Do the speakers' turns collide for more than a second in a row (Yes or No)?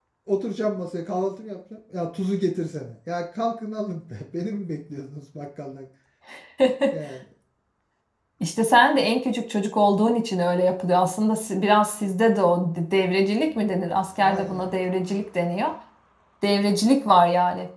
No